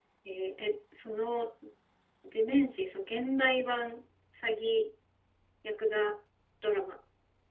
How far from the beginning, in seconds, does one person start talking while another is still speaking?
none

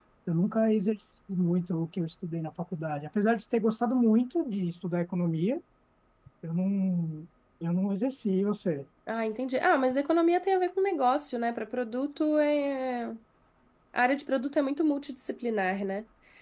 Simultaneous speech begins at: none

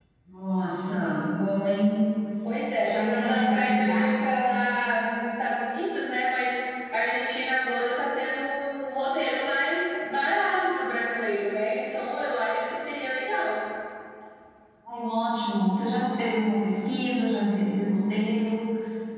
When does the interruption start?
2.8 s

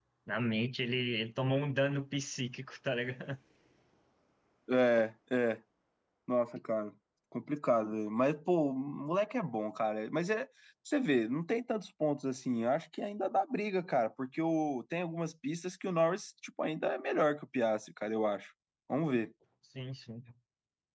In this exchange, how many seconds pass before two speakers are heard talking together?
none

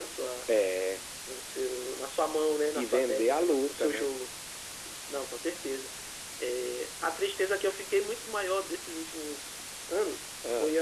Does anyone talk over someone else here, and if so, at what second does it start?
2.8 s

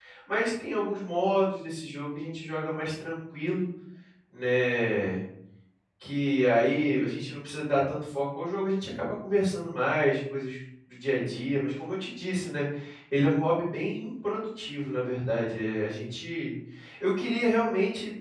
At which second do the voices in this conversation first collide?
none

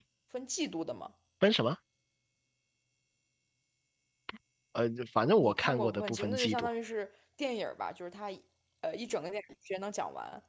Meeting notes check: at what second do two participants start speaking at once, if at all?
5.4 s

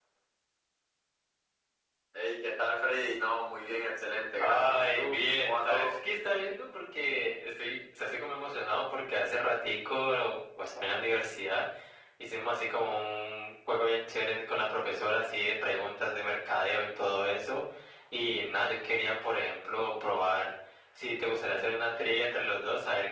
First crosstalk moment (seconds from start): 4.4 s

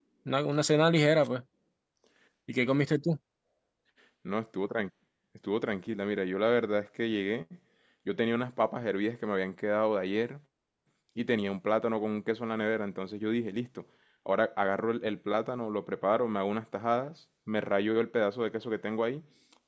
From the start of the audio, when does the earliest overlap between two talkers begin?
none

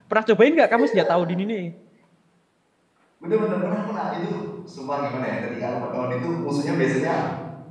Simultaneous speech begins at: none

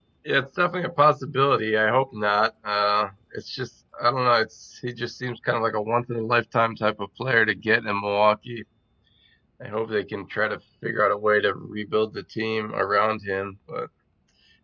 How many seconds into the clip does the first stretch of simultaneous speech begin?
none

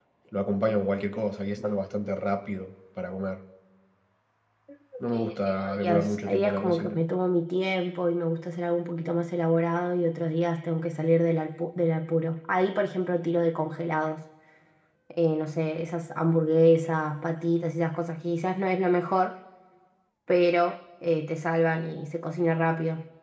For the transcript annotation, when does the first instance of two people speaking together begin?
5.1 s

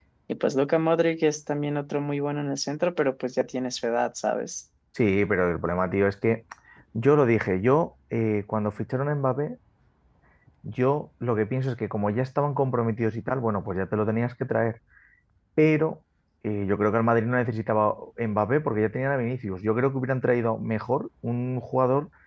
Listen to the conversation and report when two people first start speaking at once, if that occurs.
none

